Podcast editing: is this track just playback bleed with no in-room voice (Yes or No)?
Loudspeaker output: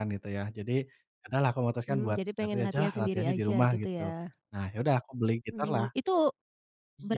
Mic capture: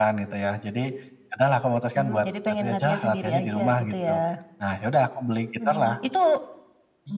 Yes